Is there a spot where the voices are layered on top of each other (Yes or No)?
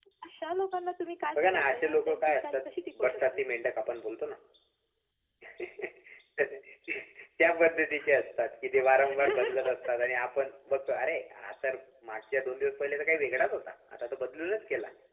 Yes